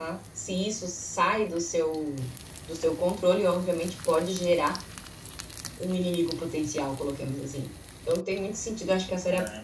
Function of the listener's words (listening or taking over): listening